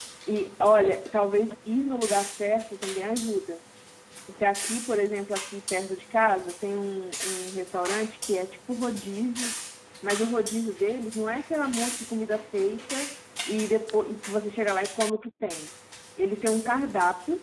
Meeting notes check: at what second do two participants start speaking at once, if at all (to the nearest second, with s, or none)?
none